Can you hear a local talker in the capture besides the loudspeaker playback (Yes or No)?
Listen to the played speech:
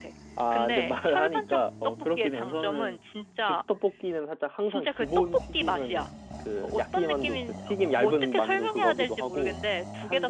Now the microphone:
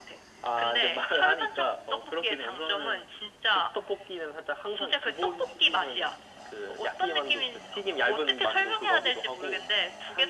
No